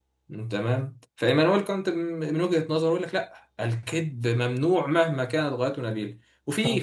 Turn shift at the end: No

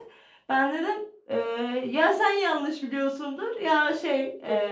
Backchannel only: No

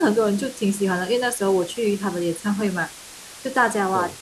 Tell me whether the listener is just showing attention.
Yes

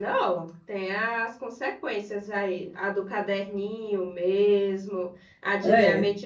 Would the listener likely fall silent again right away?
Yes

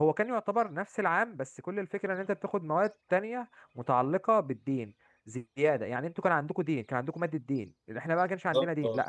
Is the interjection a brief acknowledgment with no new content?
Yes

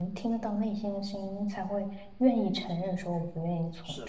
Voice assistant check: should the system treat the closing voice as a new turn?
Yes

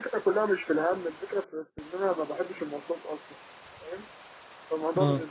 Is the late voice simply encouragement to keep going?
Yes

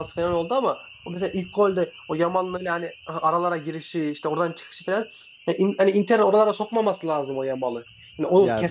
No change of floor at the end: Yes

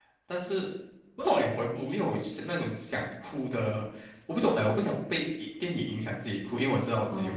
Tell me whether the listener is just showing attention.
No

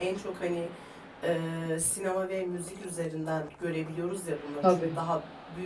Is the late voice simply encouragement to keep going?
Yes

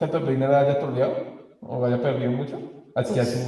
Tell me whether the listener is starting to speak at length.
Yes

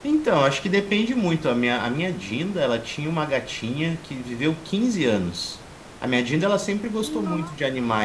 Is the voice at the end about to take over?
No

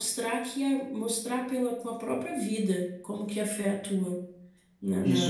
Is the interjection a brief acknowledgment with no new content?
No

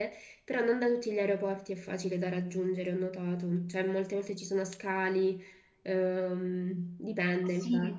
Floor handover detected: Yes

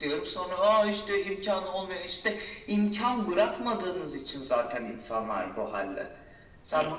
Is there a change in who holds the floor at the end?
No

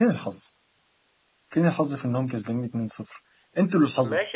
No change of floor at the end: No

